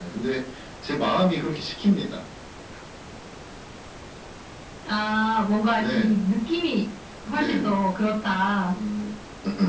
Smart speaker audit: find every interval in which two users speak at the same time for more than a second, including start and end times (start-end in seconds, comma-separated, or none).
none